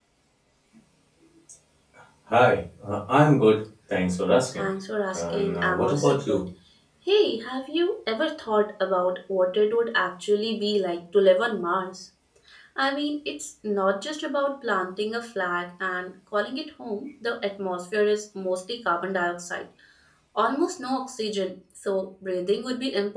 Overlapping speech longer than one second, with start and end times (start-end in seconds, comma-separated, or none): 5.1-6.4